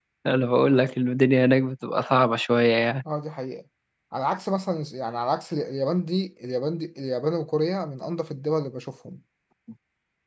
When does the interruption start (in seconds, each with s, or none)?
none